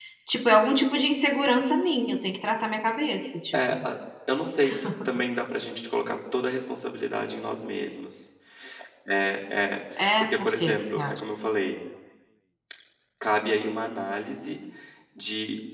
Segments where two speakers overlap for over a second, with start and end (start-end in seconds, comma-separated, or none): 10.0-11.2